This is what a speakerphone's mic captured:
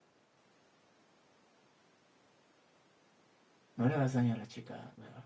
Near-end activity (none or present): present